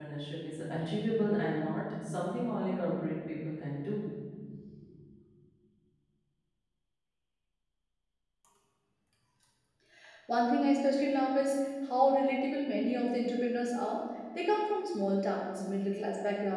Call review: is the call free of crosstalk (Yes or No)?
Yes